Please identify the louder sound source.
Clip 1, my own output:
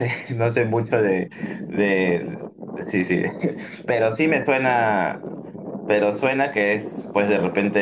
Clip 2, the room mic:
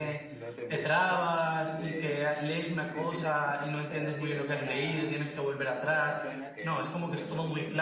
user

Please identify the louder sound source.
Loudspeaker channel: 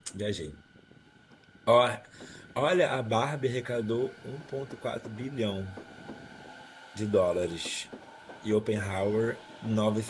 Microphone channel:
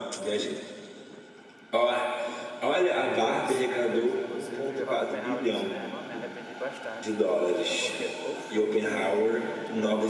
echo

